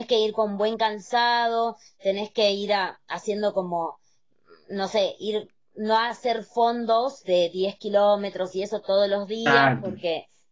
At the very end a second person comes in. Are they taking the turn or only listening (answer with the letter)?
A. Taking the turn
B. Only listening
B